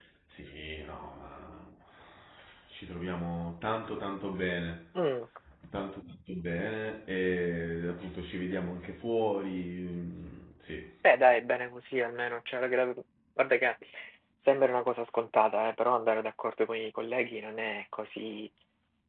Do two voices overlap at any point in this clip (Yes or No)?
No